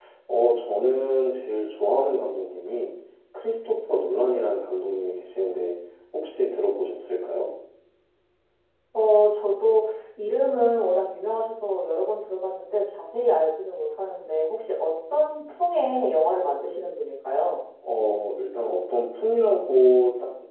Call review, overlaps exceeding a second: none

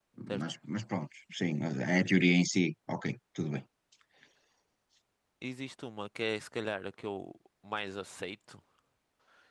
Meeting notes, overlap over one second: none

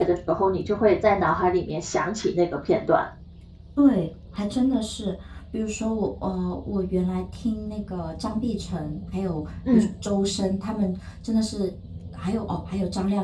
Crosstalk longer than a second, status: none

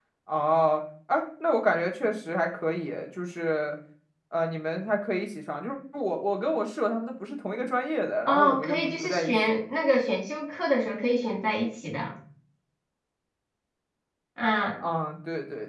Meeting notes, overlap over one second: present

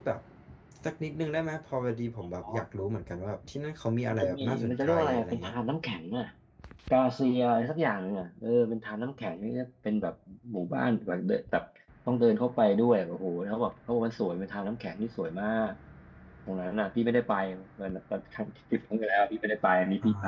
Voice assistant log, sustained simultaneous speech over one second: present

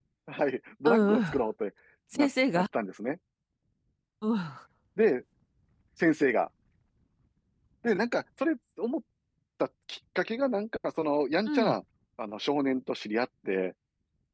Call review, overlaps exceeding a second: none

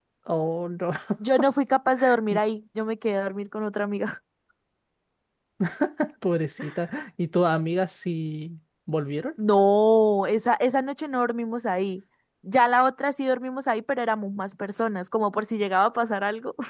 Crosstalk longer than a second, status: none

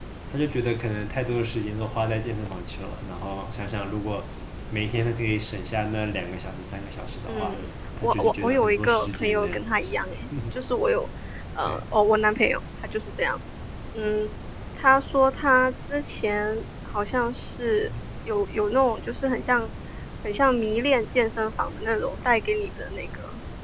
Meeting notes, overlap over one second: present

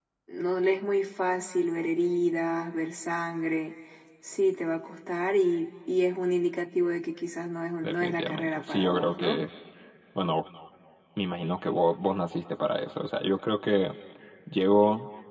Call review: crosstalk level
present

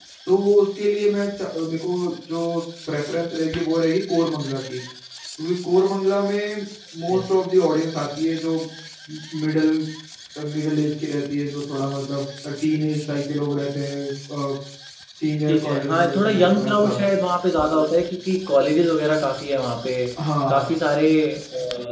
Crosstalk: present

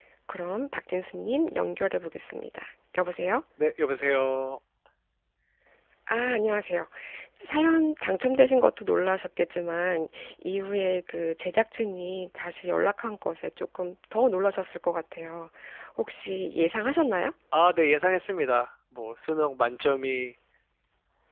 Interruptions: none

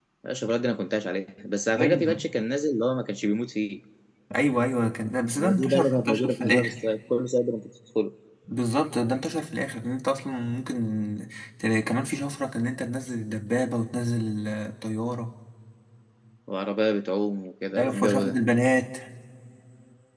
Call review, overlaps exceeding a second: present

